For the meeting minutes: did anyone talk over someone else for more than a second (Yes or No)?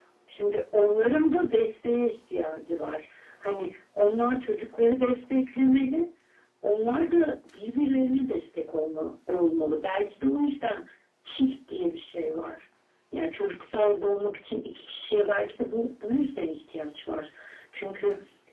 No